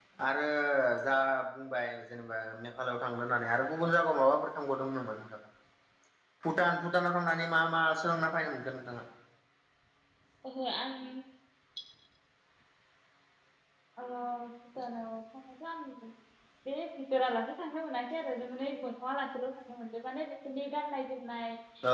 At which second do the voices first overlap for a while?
none

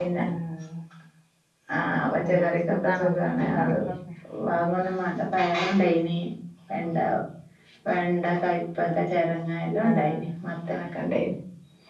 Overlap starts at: 2.3 s

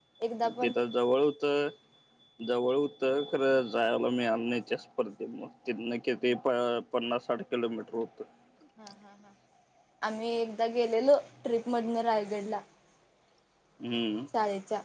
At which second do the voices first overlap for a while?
none

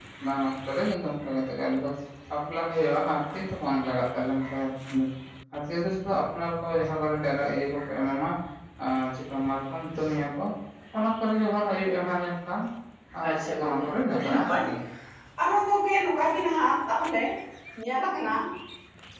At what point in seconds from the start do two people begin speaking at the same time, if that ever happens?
13.3 s

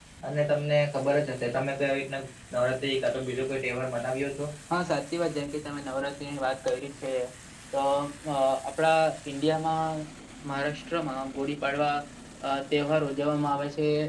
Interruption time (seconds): none

